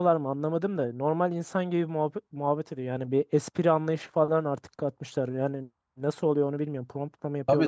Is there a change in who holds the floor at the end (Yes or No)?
Yes